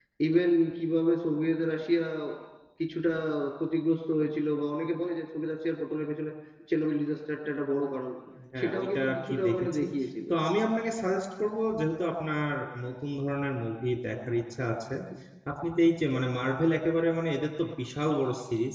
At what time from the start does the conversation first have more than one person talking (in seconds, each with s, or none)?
8.6 s